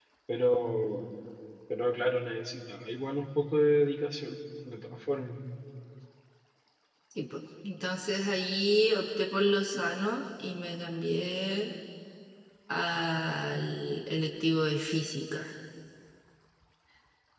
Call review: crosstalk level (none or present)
none